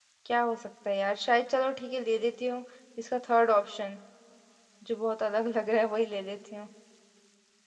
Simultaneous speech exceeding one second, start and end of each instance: none

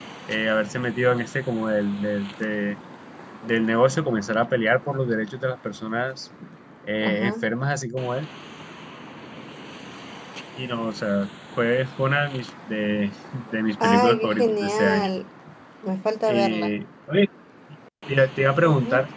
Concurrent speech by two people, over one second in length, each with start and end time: 13.8-15.1

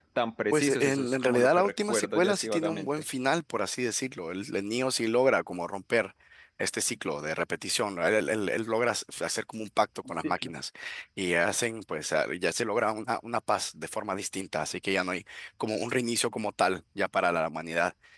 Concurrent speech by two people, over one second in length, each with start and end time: 0.5-2.9

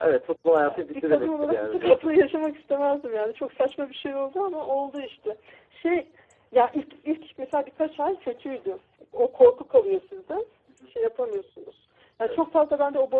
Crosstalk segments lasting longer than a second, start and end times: 0.6-2.1

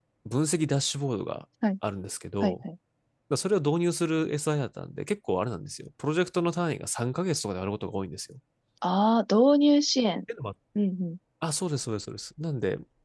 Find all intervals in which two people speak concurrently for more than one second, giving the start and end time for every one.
none

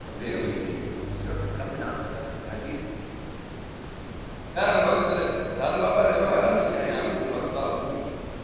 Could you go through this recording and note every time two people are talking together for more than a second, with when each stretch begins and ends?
6.2-7.8

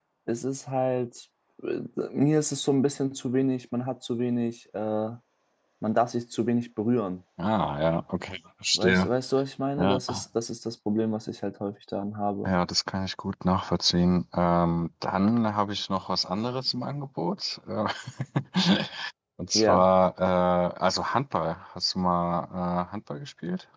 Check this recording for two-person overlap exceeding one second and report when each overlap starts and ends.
none

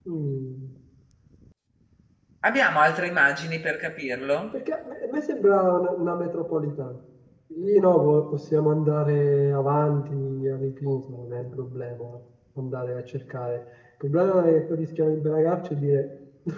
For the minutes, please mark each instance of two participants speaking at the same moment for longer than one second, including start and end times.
none

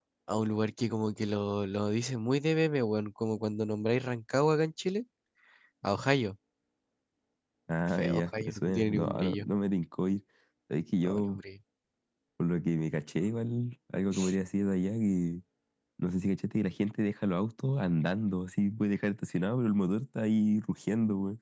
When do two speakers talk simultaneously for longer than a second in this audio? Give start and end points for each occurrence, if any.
7.8-9.5

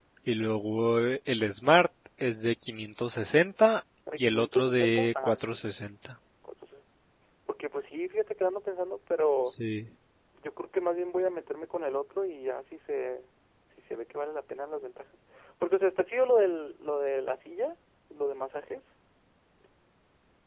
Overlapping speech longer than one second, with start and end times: 4.2-5.7

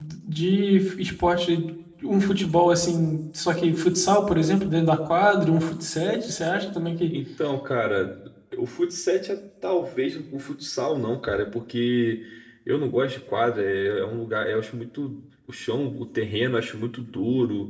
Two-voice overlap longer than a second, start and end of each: none

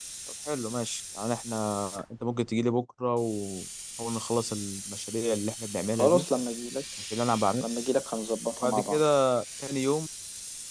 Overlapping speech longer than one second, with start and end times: none

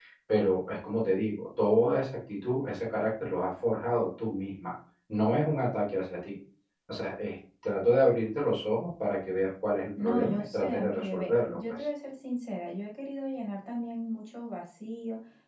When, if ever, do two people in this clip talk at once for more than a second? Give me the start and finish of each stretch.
10.0-11.8

